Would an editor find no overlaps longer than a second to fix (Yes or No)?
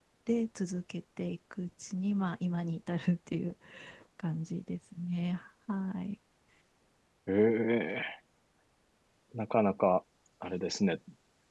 Yes